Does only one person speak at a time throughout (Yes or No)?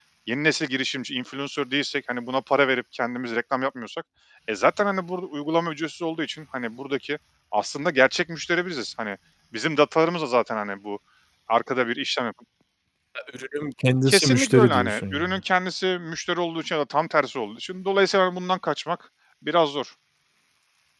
No